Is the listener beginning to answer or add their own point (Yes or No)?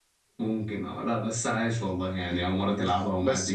Yes